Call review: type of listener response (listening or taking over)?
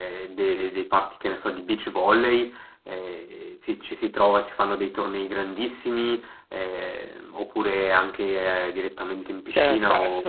taking over